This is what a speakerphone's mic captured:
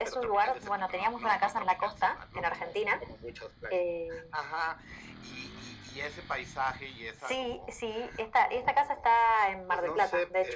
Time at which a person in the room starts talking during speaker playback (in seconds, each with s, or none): none